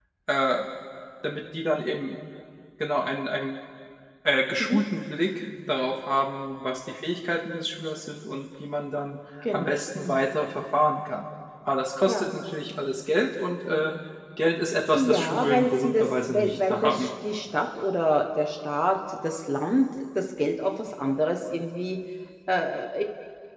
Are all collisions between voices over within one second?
No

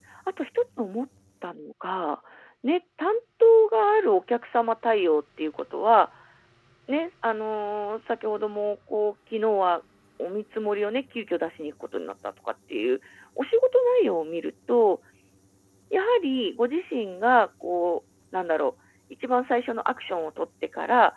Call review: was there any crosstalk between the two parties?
No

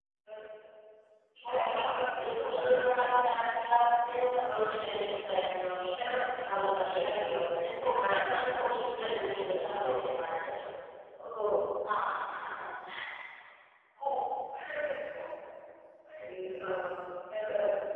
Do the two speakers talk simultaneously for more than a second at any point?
Yes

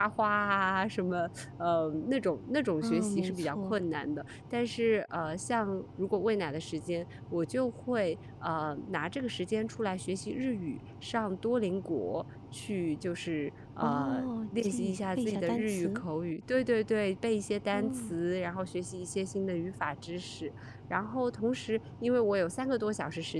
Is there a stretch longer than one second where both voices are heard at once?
Yes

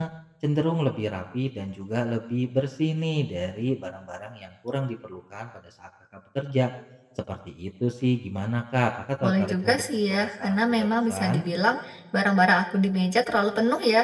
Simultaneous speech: Yes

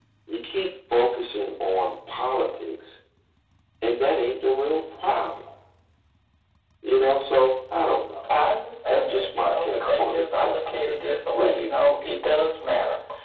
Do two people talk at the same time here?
Yes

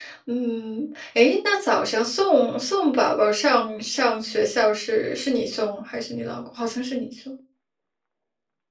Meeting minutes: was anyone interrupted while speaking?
No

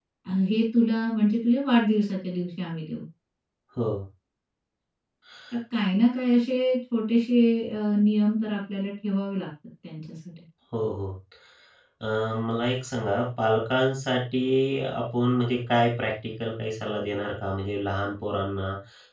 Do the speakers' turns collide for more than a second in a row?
No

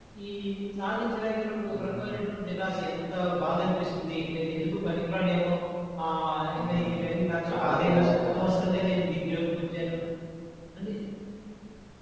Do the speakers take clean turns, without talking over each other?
No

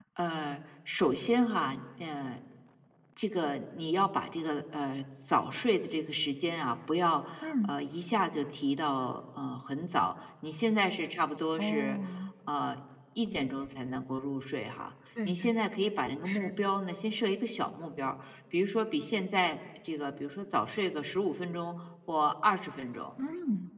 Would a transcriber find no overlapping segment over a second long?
Yes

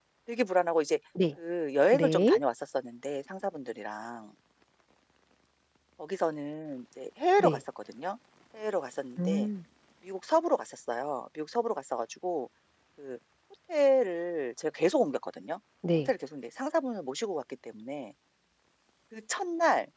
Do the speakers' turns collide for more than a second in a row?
No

